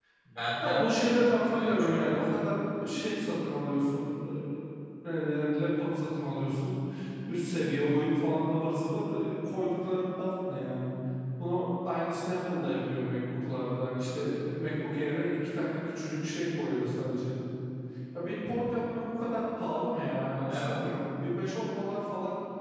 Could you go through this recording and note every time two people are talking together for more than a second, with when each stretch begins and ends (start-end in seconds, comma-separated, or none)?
0.6-2.2